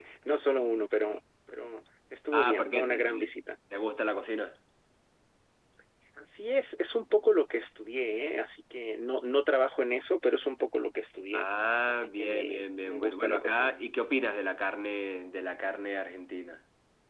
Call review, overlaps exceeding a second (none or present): present